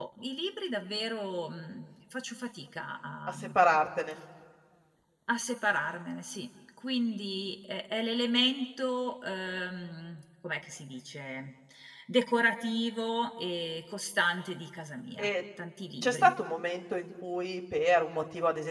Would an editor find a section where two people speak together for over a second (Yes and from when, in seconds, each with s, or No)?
No